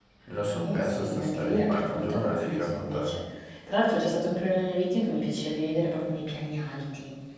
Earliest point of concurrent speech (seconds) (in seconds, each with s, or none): 0.6 s